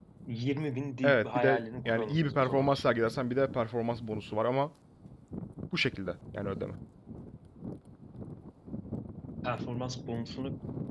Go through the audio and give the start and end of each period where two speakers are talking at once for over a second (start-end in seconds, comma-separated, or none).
1.0-3.1